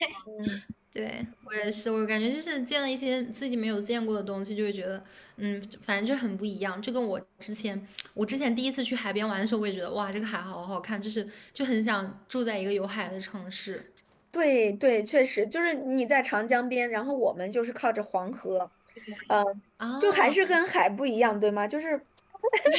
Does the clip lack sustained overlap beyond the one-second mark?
Yes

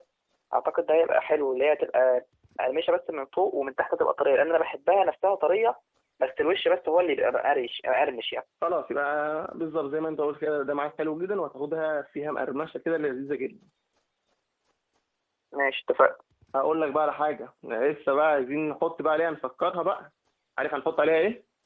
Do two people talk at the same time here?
No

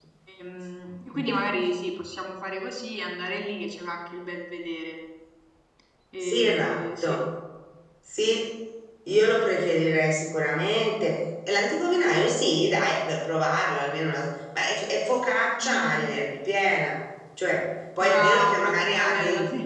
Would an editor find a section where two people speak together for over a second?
Yes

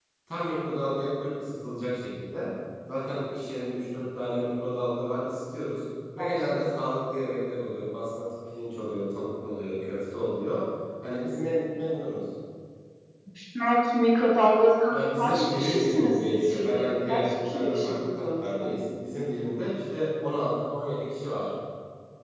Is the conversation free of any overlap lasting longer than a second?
No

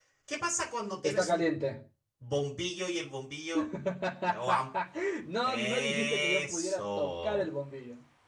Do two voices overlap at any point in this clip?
Yes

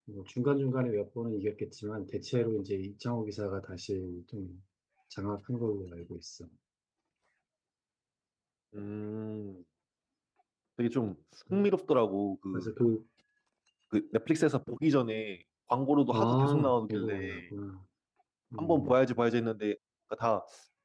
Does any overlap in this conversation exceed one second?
Yes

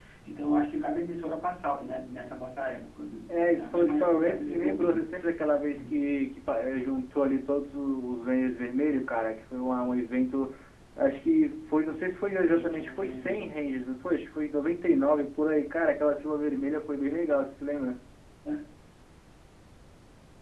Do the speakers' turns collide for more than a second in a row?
Yes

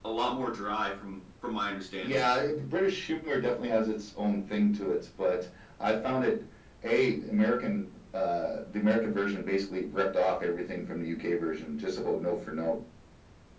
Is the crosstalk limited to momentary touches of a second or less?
Yes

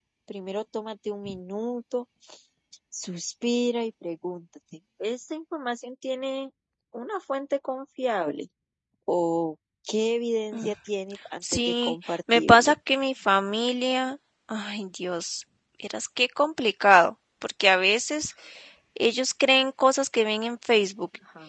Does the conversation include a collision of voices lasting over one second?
Yes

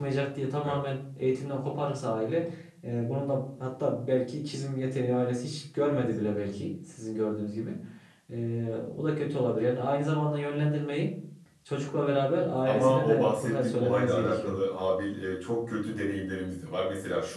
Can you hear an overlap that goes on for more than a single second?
Yes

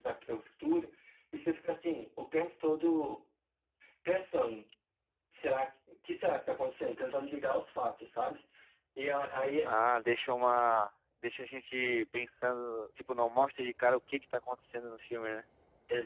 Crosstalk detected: No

